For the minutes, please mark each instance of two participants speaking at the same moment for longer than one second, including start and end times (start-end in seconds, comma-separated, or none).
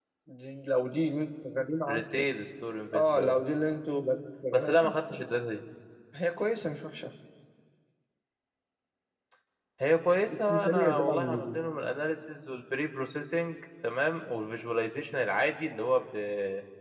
10.3-11.6